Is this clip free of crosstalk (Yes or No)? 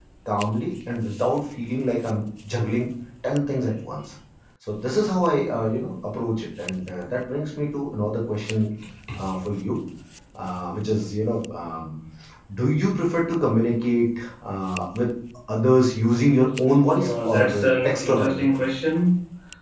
No